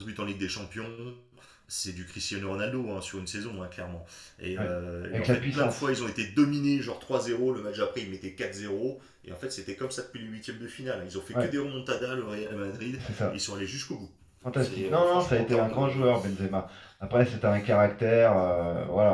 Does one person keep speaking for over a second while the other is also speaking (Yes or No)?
Yes